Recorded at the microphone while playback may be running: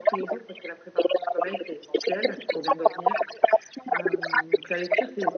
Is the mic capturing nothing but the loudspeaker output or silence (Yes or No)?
No